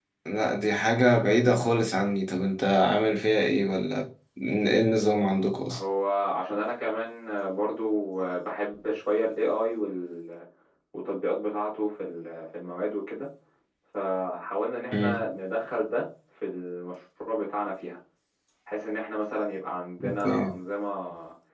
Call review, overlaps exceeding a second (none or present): none